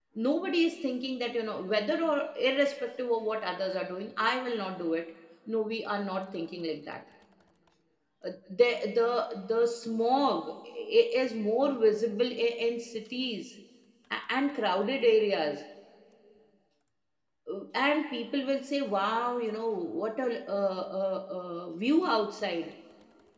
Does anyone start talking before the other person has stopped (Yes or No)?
No